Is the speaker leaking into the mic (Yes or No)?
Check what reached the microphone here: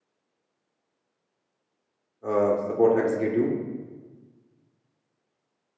No